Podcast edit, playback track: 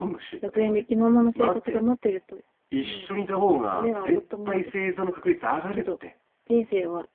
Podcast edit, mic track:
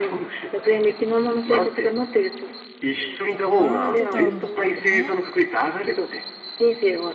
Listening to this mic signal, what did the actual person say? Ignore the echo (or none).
たらやられてたんだからね。